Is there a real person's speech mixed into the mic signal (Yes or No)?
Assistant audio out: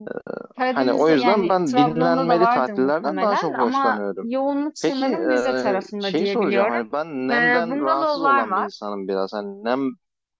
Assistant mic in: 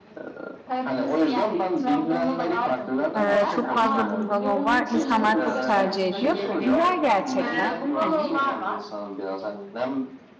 Yes